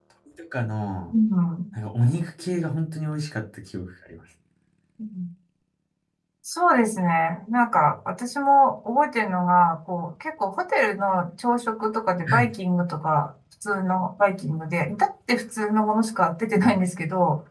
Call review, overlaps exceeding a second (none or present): none